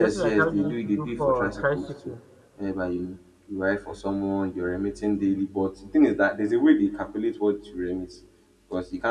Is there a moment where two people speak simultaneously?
Yes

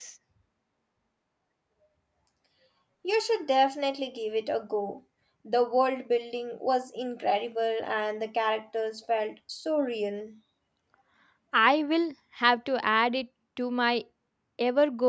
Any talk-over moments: No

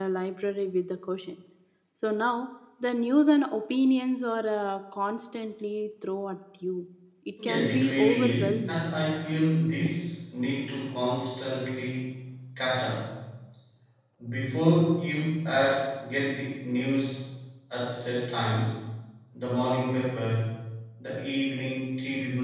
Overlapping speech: Yes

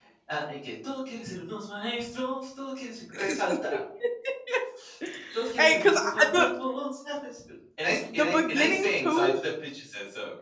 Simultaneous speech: Yes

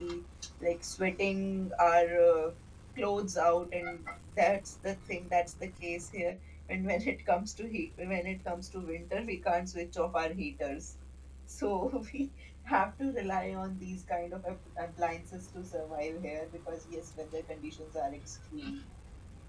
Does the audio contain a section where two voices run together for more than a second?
No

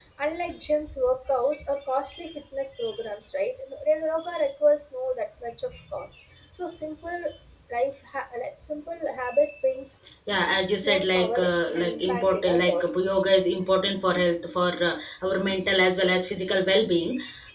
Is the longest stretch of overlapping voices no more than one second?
No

